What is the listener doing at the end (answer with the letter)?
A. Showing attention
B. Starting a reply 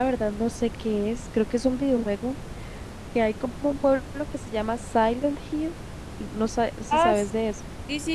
B